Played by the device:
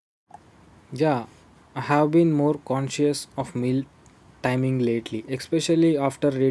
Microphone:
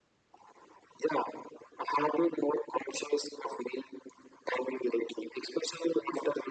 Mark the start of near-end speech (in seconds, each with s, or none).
none